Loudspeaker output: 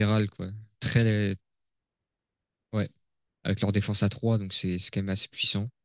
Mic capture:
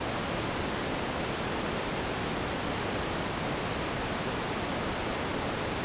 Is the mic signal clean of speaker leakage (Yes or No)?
Yes